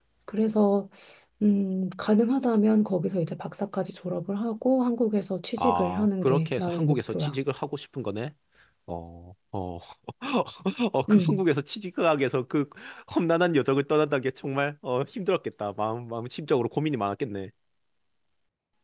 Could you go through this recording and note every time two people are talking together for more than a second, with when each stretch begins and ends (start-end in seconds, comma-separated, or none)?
5.6-7.4